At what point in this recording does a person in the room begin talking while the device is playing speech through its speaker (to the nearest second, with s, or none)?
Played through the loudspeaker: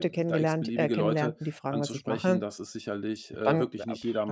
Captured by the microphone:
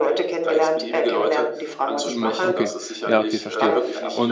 2 s